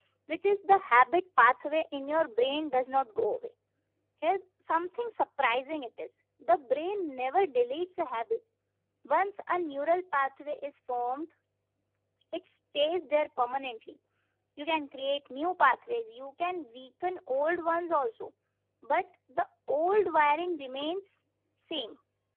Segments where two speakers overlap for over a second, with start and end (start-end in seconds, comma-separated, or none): none